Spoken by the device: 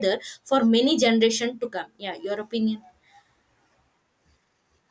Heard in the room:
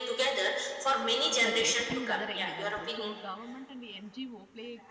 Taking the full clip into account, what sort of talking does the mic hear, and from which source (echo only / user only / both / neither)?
both